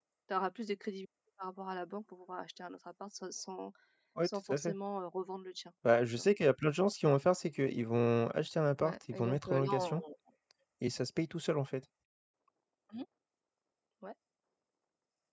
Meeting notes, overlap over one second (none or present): present